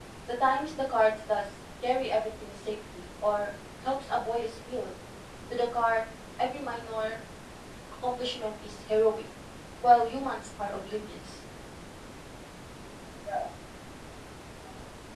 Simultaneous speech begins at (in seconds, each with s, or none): none